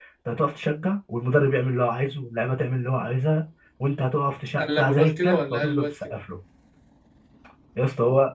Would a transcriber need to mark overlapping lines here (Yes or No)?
Yes